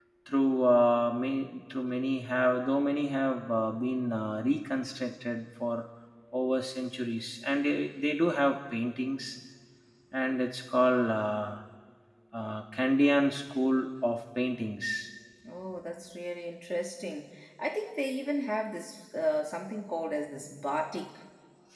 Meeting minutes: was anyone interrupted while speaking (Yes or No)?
No